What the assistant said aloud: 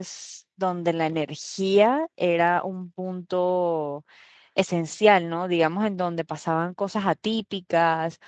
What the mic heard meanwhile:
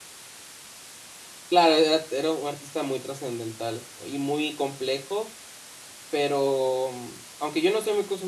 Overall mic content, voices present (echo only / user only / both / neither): user only